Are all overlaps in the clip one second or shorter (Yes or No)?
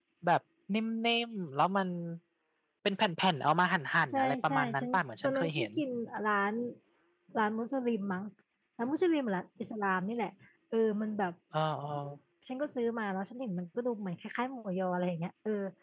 No